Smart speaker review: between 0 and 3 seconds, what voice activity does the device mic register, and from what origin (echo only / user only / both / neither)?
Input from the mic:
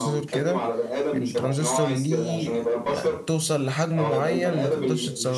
both